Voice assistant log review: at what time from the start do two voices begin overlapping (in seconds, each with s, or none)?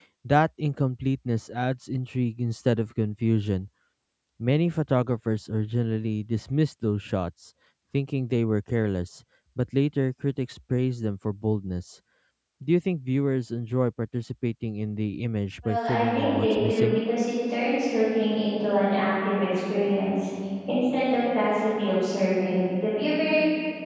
15.6 s